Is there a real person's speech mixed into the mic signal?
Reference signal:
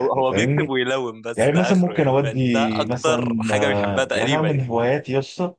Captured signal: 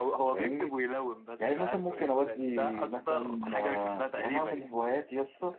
No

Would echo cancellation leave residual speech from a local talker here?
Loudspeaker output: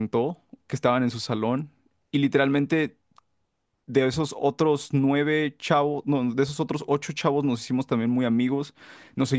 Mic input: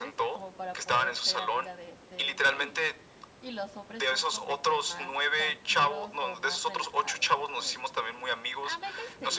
Yes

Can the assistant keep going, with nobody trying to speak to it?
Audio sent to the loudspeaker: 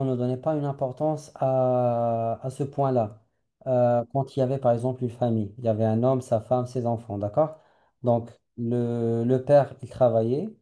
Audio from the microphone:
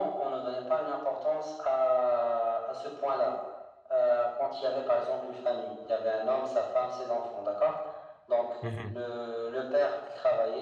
No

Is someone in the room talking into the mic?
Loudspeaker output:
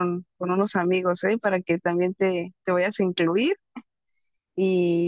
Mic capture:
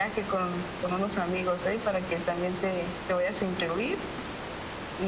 No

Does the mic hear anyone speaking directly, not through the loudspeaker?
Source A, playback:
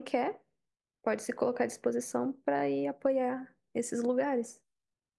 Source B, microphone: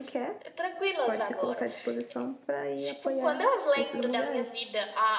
Yes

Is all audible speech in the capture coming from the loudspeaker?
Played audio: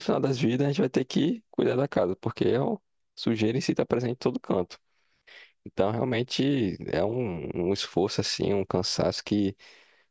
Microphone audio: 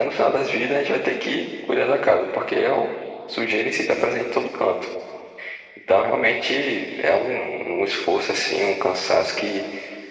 Yes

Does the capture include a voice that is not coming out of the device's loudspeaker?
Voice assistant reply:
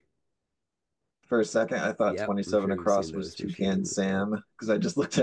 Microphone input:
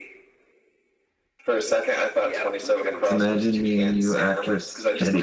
Yes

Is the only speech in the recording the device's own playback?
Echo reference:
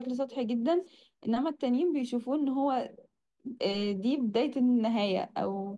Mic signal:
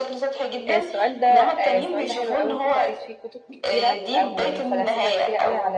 No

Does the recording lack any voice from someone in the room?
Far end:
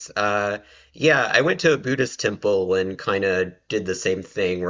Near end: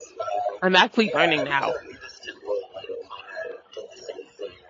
No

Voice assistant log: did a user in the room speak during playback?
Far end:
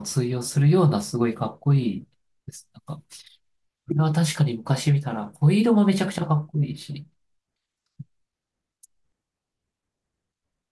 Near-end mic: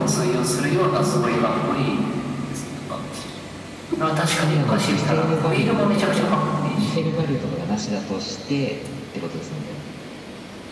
Yes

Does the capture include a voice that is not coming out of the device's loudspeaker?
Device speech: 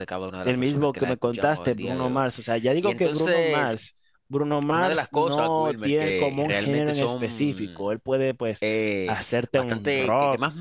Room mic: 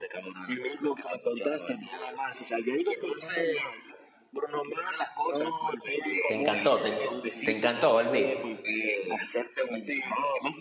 Yes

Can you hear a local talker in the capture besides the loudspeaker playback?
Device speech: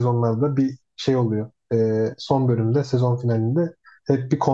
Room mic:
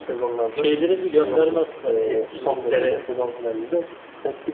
Yes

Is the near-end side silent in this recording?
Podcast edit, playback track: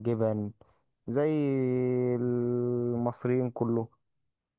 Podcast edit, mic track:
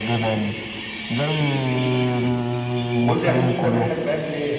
No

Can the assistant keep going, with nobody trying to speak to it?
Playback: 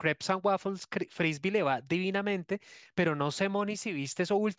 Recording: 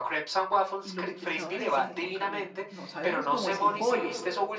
No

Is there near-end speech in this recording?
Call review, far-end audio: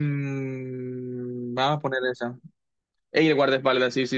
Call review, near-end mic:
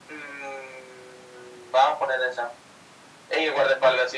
No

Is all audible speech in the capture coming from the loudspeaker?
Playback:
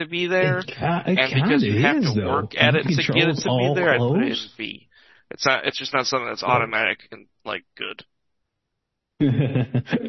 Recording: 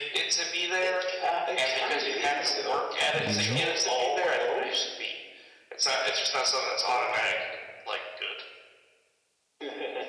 No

